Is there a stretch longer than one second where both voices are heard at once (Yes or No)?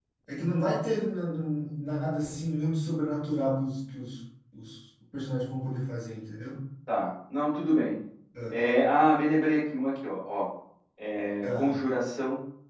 No